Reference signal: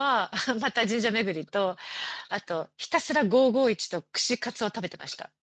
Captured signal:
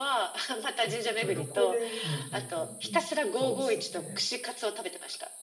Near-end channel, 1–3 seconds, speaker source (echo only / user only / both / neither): both